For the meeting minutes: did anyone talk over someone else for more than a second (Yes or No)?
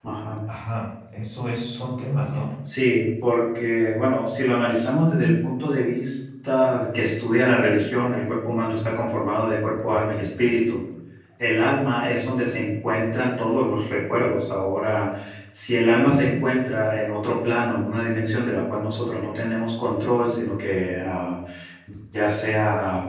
No